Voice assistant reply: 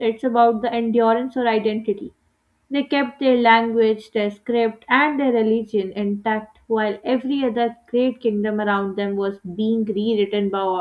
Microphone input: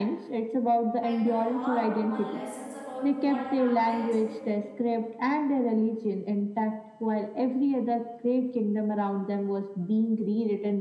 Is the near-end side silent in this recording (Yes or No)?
No